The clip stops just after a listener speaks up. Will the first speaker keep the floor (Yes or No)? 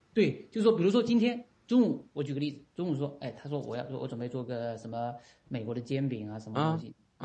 Yes